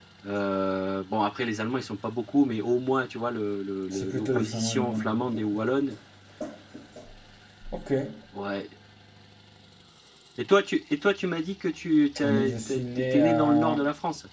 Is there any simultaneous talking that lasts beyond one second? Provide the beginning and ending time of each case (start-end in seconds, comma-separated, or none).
3.9-5.4, 12.2-13.8